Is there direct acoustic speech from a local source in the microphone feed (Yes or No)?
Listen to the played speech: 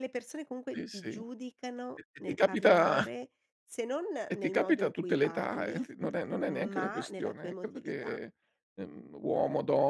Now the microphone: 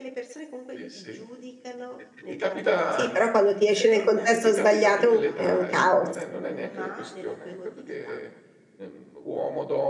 Yes